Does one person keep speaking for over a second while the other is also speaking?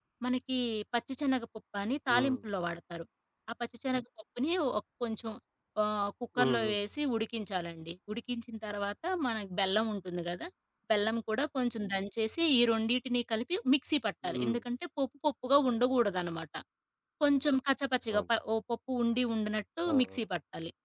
No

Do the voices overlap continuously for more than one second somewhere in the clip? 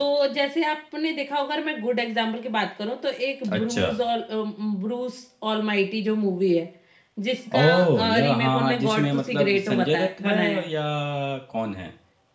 Yes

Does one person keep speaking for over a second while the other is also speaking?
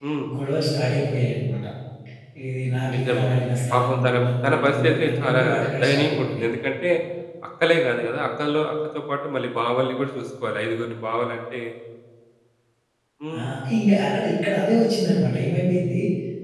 Yes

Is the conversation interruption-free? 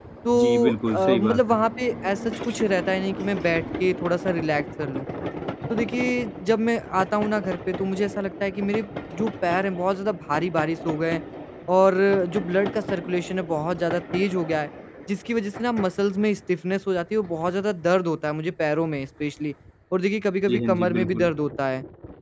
No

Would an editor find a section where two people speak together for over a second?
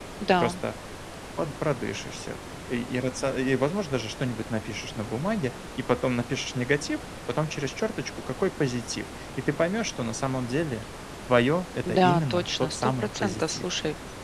Yes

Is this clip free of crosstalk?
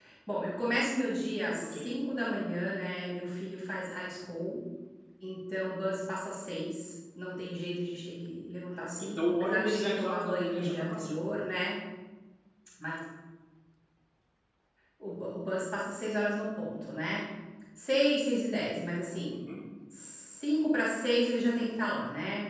No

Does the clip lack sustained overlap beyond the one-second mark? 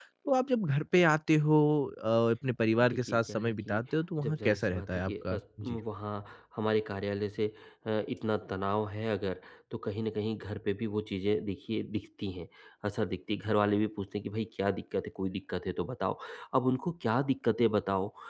No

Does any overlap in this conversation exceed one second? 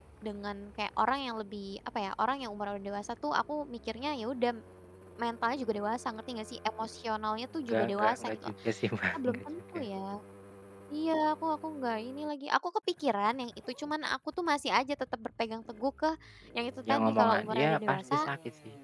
Yes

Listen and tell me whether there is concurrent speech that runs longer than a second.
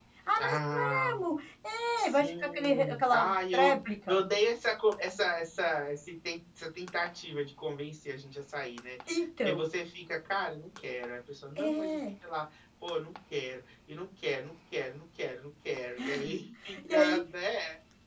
Yes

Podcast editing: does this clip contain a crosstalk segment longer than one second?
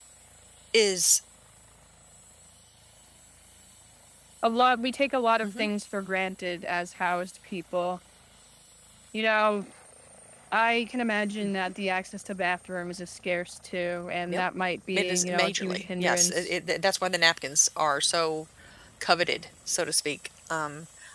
Yes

